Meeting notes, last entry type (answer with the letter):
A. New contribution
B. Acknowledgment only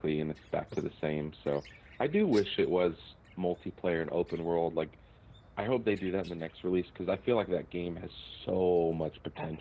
A